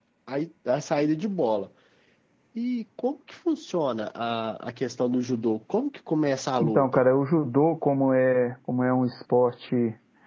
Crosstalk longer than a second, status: none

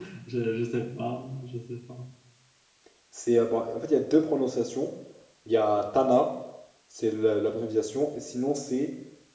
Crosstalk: none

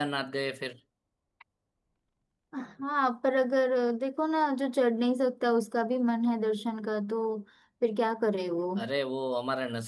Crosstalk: none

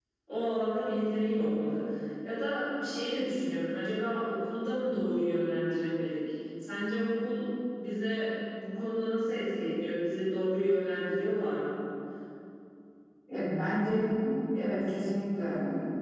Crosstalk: none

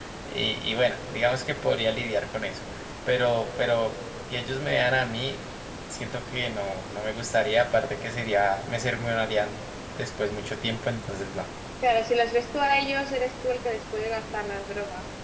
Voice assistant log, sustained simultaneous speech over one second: none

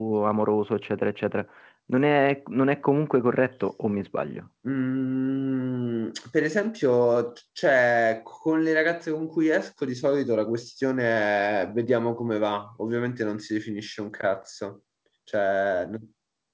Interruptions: none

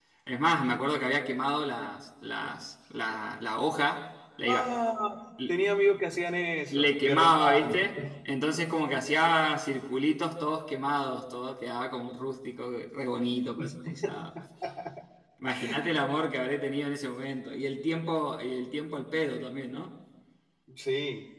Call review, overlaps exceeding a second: present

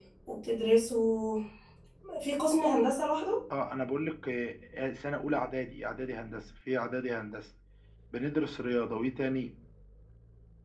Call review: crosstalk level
none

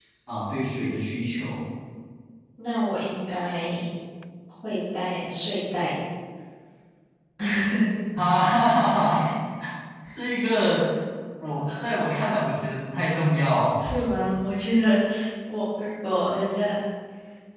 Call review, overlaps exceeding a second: none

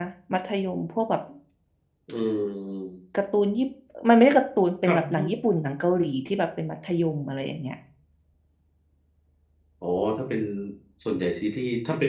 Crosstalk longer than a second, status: none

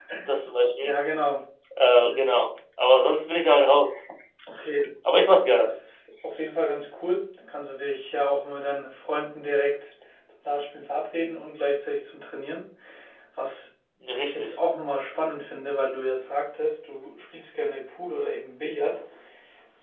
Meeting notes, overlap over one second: none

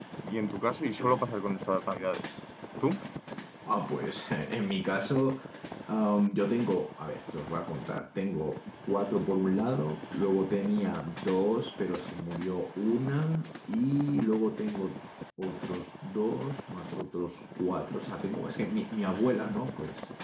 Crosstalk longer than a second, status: none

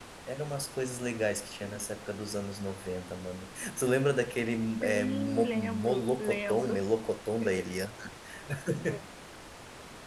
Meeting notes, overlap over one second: present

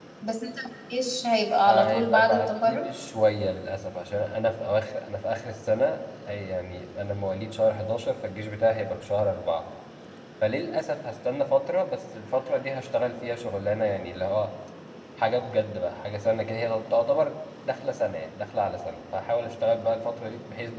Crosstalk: present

